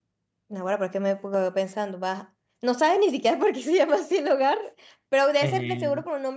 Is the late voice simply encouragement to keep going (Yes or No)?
Yes